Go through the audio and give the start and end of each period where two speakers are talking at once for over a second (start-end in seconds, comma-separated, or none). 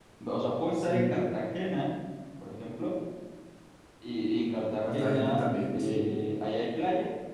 4.9-6.2